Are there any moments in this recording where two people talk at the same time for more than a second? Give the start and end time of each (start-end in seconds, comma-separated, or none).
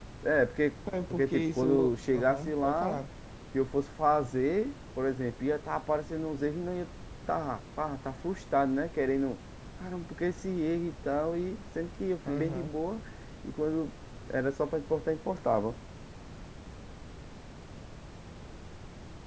1.1-3.0